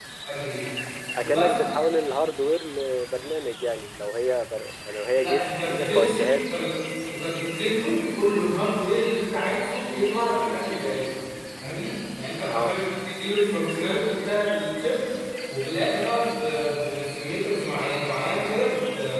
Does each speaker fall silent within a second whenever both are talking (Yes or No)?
No